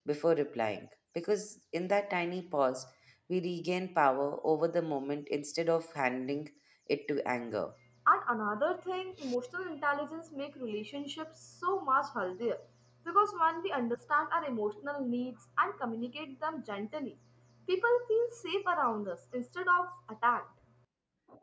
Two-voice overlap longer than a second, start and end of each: none

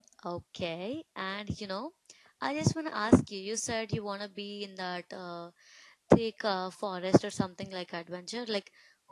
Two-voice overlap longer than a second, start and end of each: none

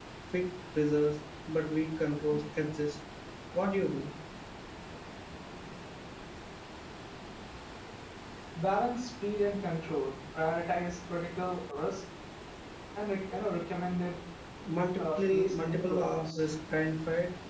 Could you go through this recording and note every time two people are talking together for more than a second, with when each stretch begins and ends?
15.0-16.4

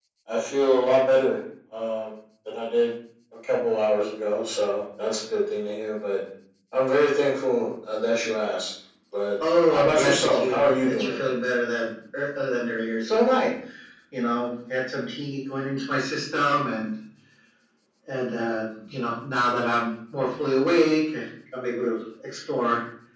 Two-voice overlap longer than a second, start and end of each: 9.7-11.1

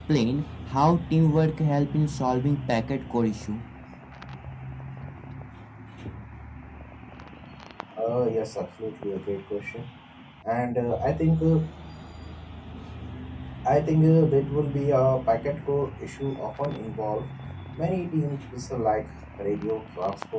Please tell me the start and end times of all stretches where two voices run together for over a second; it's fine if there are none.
none

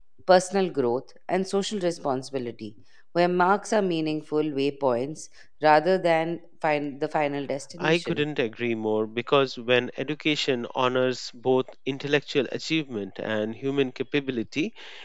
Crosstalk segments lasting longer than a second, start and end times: none

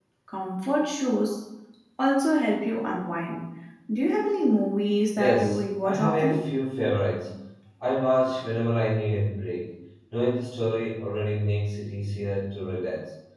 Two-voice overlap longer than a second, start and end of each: 5.1-6.4

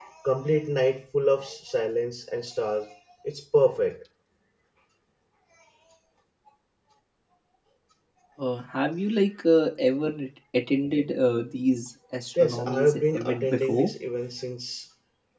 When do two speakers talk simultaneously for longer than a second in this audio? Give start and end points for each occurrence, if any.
12.4-13.9

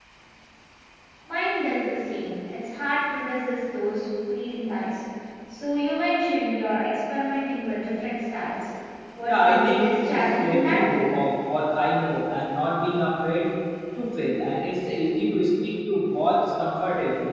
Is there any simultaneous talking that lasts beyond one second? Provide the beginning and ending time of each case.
9.2-10.8

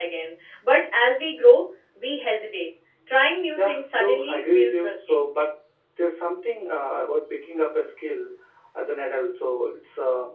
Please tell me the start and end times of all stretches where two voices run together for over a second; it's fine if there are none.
3.6-5.2

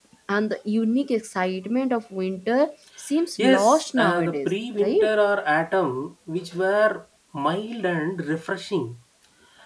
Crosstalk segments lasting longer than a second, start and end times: 3.4-5.1

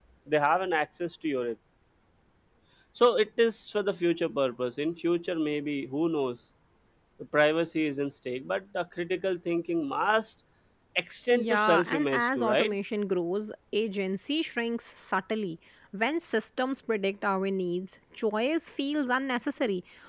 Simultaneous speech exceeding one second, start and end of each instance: 11.3-12.8

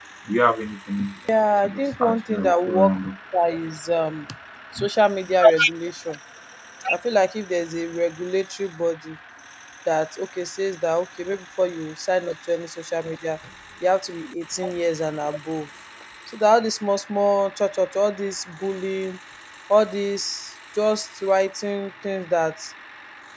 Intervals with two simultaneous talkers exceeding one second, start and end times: 1.6-3.0

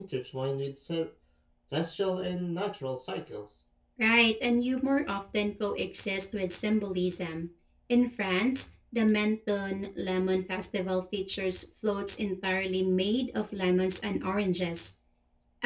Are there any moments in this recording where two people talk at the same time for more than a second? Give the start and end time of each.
none

